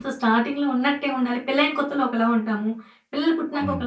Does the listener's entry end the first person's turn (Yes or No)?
No